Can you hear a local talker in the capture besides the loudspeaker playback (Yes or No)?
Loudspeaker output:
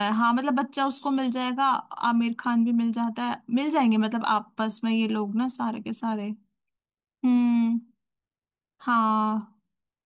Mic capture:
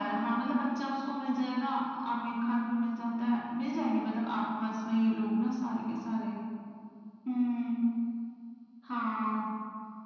No